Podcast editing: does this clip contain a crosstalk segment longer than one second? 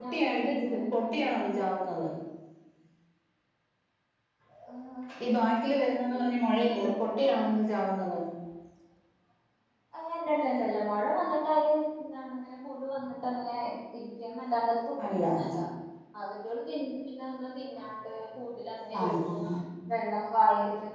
Yes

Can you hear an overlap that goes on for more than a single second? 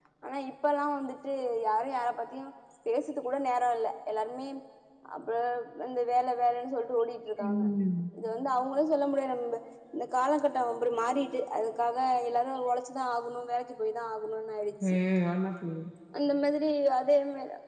No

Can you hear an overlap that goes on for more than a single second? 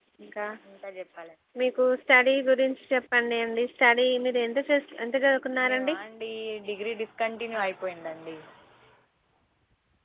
No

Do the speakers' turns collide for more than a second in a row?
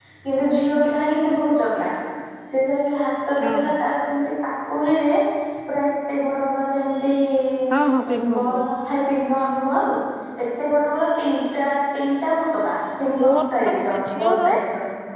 Yes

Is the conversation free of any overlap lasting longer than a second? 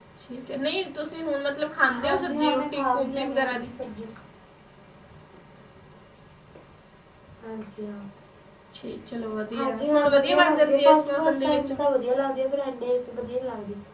No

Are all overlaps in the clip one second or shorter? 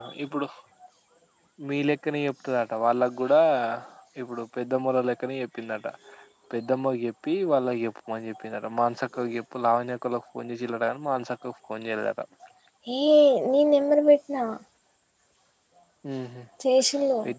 Yes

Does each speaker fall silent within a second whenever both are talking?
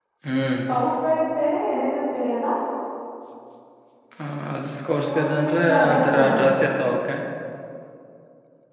No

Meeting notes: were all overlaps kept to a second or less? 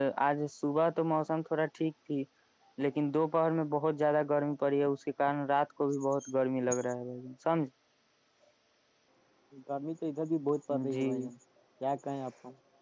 Yes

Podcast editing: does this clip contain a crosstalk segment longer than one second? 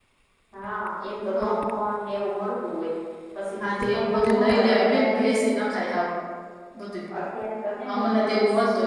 Yes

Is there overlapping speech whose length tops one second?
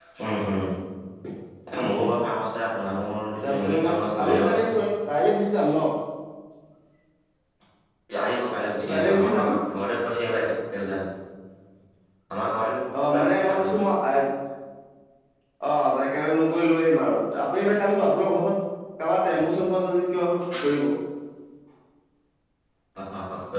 Yes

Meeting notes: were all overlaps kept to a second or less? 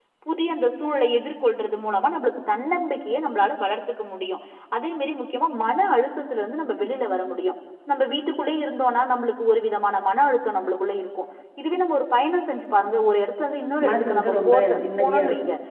No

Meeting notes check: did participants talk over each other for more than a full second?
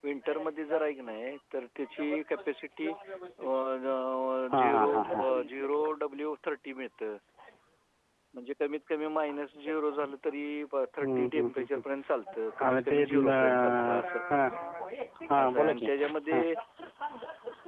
Yes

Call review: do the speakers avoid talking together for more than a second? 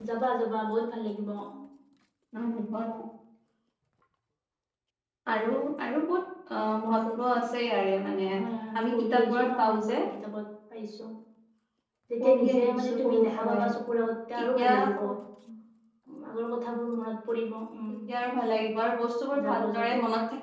No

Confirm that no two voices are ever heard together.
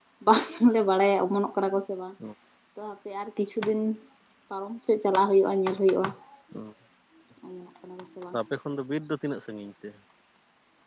Yes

